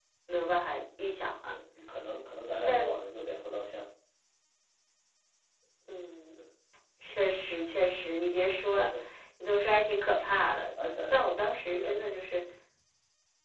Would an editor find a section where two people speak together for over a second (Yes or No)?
Yes